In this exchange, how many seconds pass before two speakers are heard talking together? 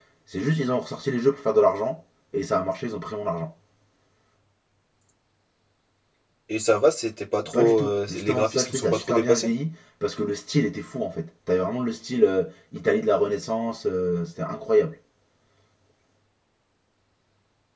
7.4 s

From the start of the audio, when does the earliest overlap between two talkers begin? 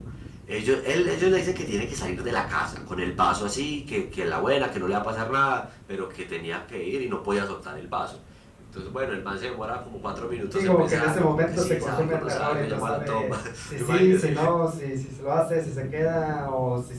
10.5 s

